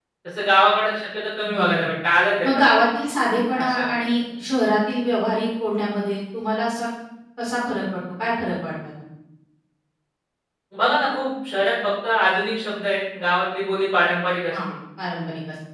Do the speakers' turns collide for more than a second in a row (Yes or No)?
No